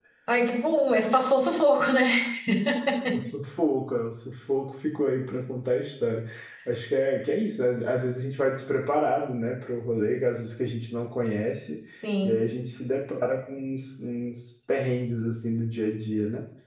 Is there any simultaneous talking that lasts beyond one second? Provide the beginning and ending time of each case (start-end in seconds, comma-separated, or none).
none